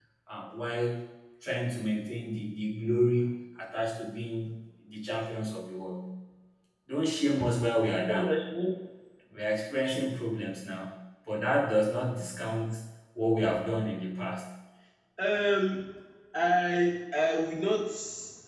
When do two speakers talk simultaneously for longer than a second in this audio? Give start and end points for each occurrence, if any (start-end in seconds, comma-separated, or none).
none